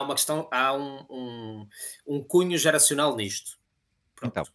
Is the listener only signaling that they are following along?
Yes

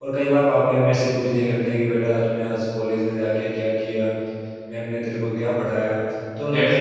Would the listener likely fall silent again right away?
No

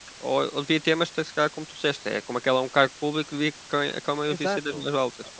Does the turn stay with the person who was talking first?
No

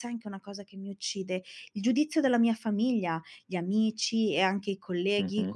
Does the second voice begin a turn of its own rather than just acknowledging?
No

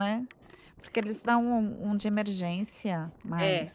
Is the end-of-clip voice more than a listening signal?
Yes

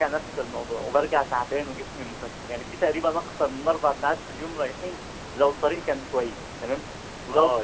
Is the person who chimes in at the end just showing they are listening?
No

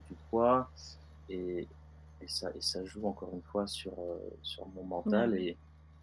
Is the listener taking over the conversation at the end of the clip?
No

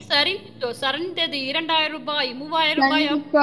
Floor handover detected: Yes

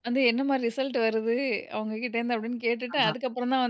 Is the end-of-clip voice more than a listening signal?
No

